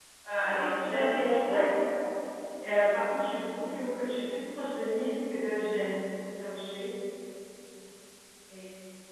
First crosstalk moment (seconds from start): 0.5 s

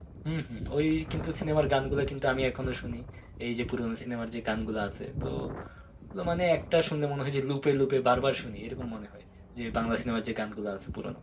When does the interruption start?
none

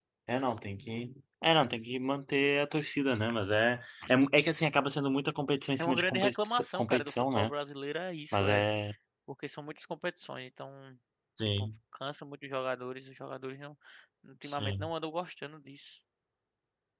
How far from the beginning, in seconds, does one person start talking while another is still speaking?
5.8 s

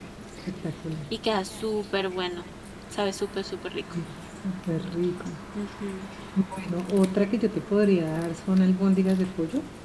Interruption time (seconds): none

